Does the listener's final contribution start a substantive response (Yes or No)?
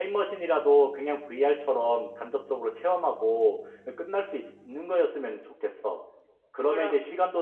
No